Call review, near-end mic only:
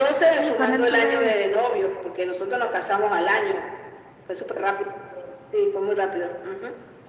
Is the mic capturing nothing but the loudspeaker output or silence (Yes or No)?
No